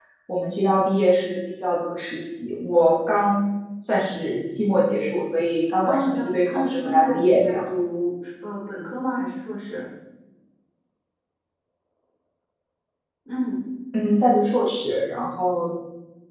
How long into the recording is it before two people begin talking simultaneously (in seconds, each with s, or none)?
5.8 s